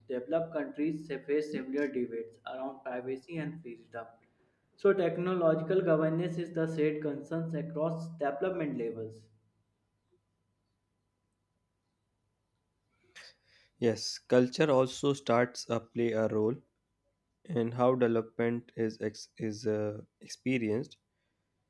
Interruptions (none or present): none